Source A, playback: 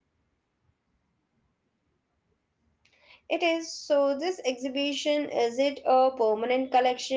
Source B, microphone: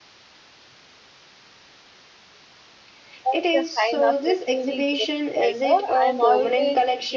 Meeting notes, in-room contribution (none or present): present